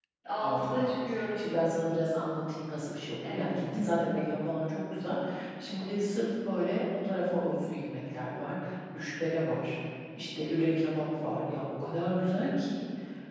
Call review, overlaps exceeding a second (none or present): none